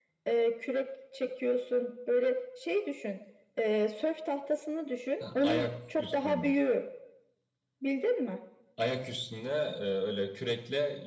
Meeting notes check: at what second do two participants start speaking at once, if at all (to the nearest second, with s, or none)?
5 s